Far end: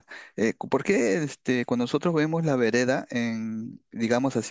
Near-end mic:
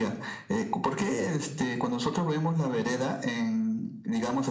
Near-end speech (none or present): none